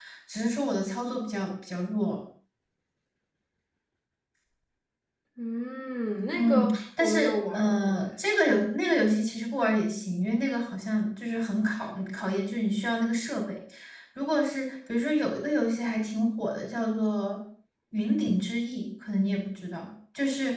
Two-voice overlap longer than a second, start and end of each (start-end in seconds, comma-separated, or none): 6.3-8.1